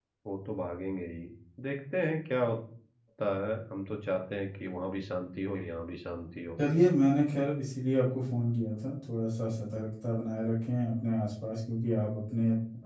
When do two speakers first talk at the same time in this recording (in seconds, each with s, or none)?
none